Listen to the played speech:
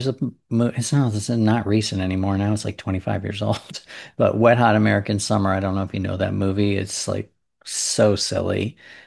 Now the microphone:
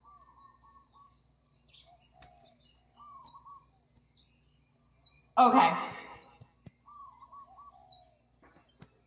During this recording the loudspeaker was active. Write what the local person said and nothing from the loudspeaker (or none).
Okay.